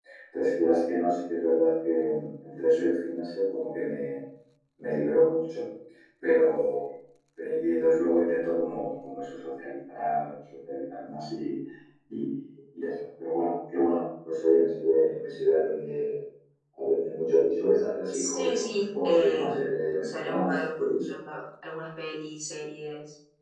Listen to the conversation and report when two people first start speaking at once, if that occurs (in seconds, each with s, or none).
18.1 s